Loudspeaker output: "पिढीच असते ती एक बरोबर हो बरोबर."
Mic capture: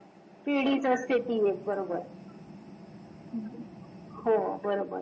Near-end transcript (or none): none